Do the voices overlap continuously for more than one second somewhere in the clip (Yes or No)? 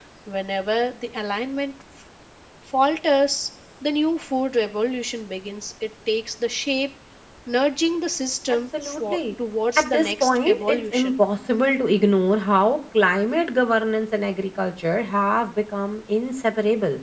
Yes